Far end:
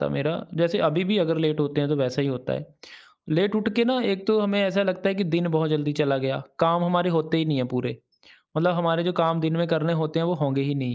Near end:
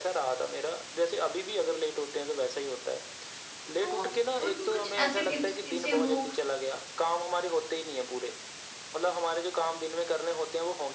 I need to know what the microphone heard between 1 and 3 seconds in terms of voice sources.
echo only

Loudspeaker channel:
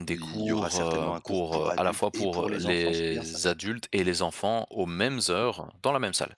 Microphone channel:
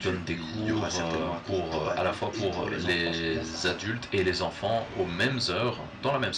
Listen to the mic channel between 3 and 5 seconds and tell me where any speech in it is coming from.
echo only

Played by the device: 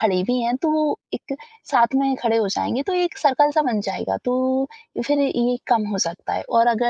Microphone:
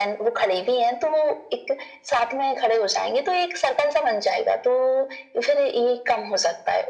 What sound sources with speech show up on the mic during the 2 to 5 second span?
echo only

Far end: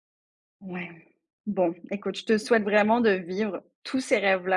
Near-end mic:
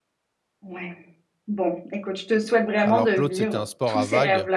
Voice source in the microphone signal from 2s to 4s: both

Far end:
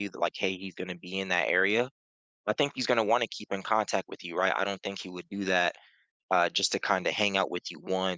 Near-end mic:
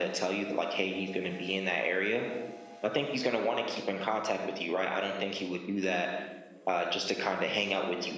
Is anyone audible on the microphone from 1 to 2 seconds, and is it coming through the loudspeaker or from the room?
echo only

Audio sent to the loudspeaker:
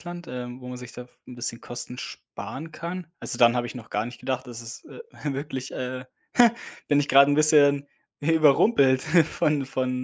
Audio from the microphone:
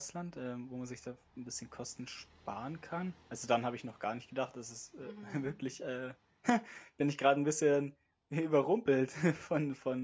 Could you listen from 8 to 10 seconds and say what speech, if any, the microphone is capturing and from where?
echo only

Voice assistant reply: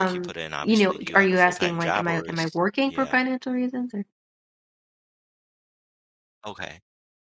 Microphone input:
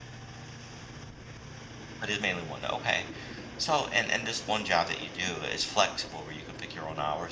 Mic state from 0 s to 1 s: neither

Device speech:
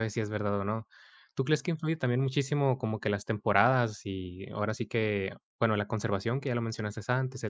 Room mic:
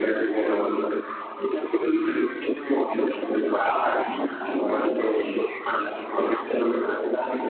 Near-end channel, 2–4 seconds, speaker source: echo only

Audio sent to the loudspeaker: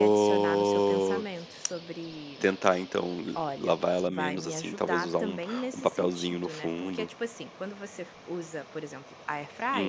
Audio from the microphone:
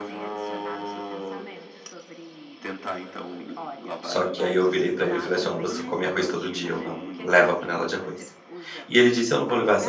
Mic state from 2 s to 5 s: both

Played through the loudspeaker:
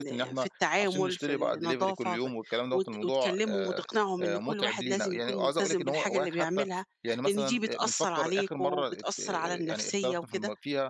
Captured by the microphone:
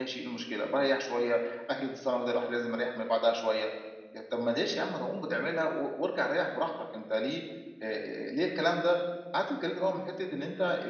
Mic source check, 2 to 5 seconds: user only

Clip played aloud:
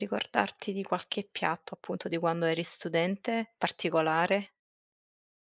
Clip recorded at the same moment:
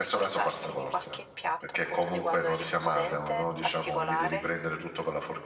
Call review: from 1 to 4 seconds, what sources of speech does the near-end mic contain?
both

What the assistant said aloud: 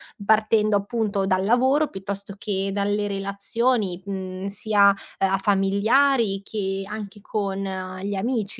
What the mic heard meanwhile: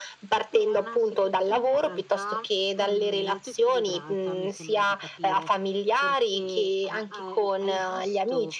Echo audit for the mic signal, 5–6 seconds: both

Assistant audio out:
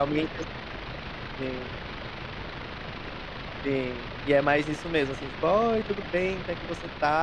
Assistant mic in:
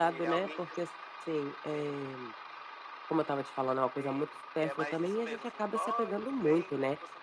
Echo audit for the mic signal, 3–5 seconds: both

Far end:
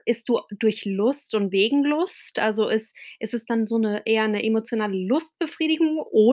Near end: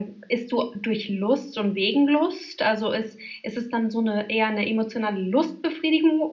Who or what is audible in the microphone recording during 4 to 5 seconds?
echo only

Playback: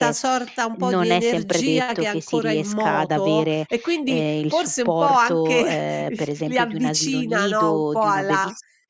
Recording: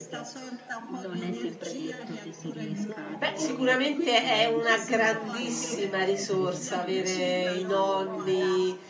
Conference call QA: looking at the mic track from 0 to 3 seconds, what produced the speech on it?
echo only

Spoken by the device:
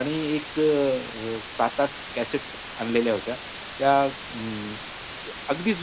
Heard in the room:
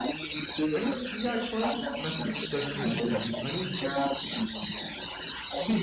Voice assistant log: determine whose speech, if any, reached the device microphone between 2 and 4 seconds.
both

